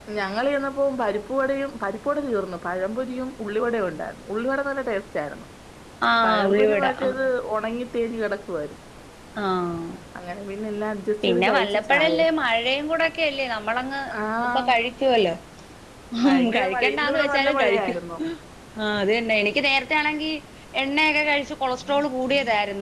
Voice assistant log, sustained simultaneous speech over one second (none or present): present